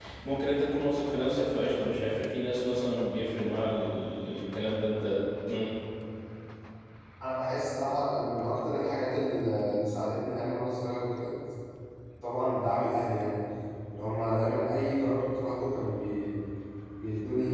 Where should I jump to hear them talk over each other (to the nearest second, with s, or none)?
none